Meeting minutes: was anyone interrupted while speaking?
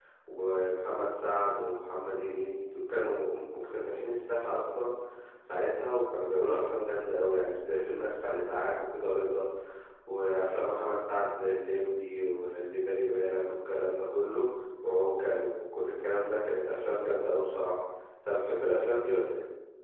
No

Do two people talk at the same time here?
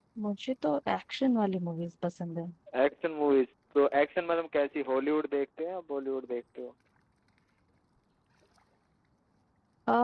No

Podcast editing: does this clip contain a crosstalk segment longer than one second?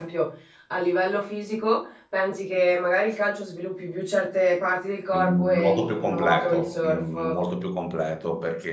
Yes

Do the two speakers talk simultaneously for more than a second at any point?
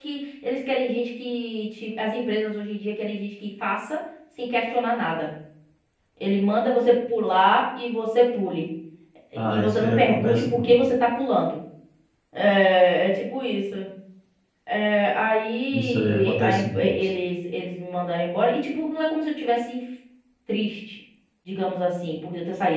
Yes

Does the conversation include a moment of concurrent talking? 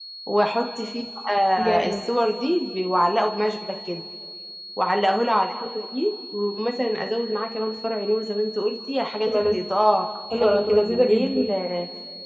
Yes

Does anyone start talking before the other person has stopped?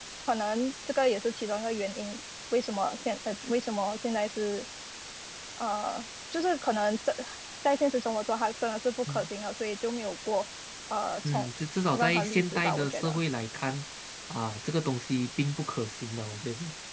Yes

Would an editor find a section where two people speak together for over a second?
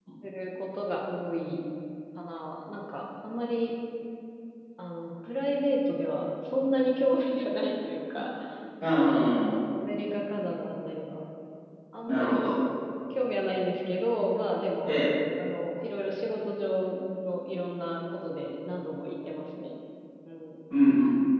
No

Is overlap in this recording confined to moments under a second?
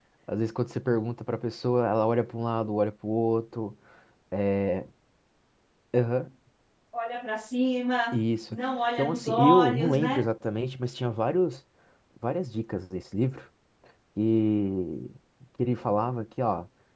No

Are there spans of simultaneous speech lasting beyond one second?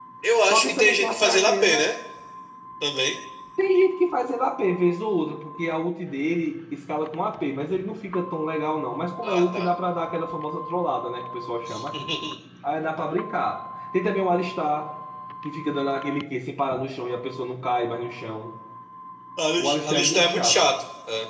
Yes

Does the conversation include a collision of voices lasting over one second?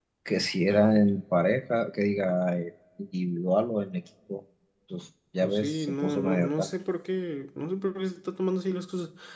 Yes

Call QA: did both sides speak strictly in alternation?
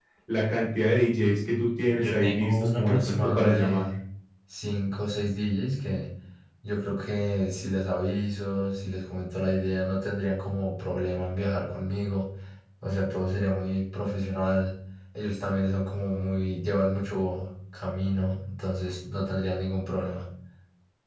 No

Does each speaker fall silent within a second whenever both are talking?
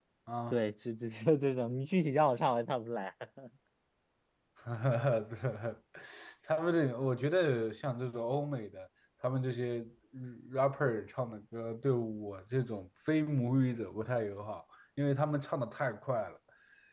Yes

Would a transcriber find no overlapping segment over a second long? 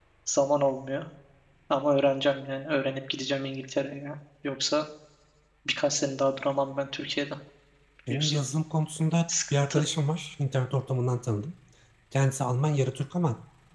Yes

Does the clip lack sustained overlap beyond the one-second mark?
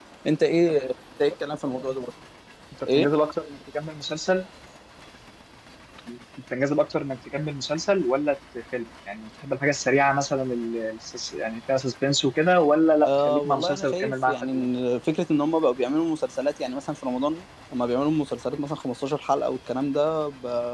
No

